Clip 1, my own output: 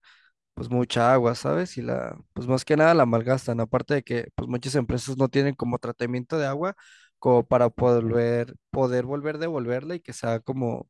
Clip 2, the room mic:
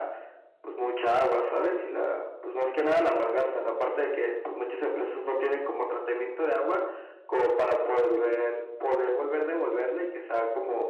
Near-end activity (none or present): none